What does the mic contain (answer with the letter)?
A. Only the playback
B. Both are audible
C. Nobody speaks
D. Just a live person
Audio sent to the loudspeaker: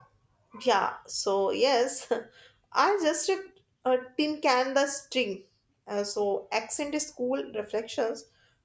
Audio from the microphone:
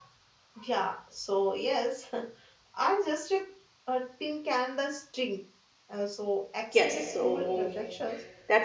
B